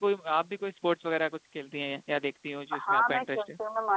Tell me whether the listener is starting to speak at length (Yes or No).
Yes